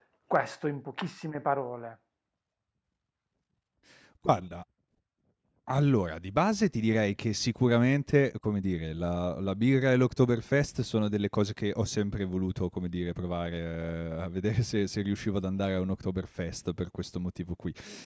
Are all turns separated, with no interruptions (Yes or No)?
Yes